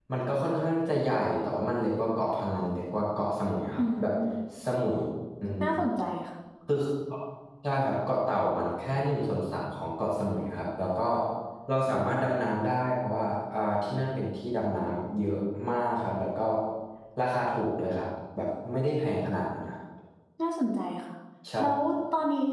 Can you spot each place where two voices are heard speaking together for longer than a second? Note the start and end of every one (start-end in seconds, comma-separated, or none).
none